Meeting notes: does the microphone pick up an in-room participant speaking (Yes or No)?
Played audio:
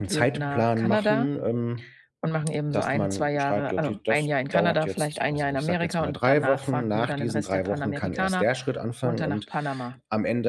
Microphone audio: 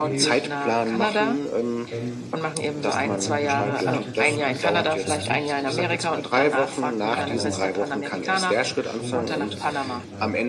Yes